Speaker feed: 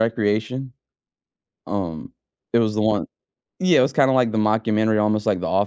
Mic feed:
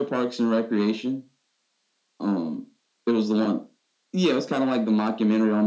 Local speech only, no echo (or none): none